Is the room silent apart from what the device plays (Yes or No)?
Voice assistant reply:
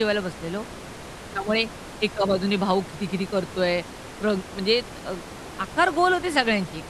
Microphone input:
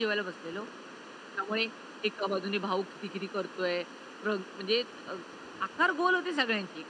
Yes